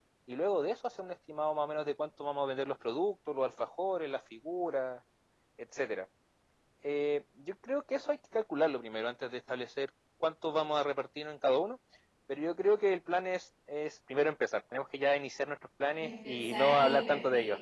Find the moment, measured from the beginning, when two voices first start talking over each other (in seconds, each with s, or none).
15.9 s